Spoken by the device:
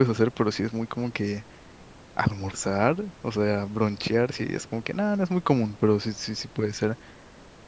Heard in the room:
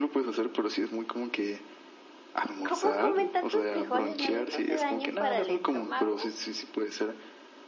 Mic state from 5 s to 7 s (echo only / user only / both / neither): both